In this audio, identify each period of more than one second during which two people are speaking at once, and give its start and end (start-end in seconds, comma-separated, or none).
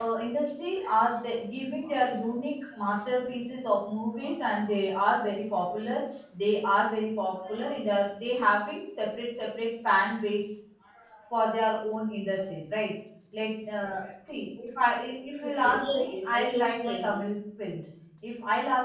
15.4-17.2